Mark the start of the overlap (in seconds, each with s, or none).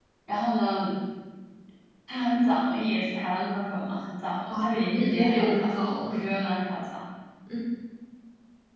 4.5 s